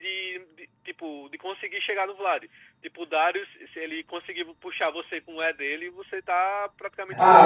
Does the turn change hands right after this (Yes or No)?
Yes